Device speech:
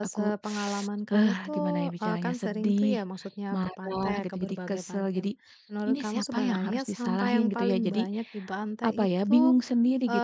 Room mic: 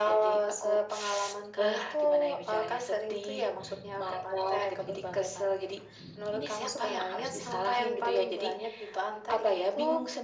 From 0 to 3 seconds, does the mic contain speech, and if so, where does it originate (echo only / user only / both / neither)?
echo only